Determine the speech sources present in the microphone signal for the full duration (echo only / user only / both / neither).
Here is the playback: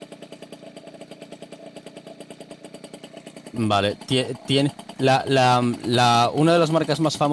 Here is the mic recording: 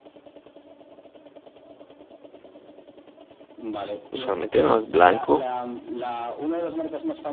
both